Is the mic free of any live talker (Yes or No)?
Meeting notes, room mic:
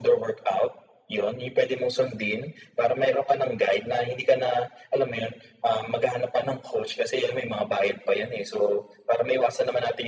Yes